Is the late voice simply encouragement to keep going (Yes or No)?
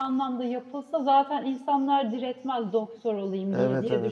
No